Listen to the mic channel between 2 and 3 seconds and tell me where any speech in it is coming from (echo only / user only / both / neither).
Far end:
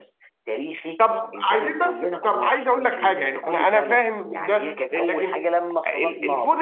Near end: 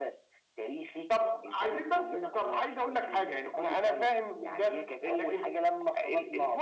echo only